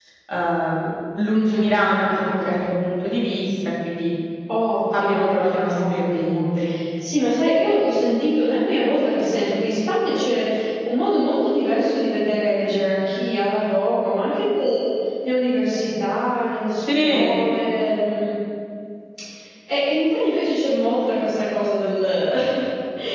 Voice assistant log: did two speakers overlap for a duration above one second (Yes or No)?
Yes